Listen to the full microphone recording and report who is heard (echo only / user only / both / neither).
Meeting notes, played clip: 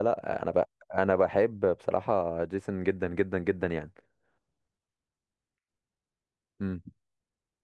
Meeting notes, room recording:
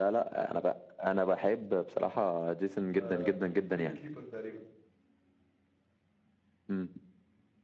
both